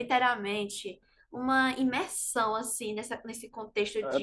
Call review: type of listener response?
taking over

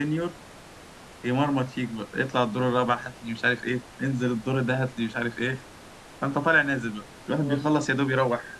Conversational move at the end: listening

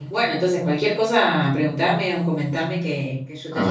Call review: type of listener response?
taking over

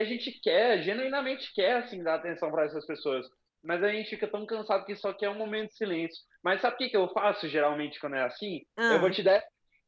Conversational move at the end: listening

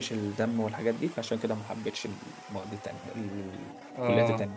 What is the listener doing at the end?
taking over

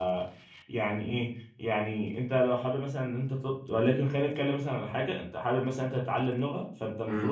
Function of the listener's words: listening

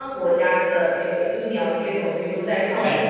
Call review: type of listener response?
listening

